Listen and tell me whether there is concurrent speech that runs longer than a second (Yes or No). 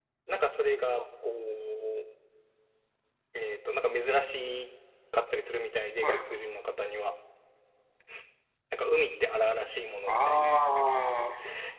No